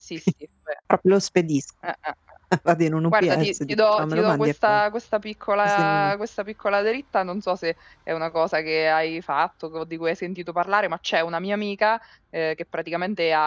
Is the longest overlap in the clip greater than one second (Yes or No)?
Yes